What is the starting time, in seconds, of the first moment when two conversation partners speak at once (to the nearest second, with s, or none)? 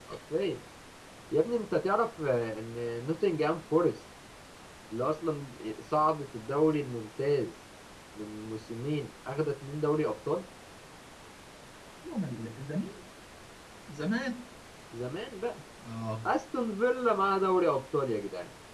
none